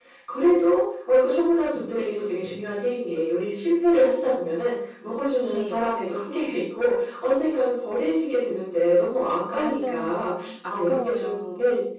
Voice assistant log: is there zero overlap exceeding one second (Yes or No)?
No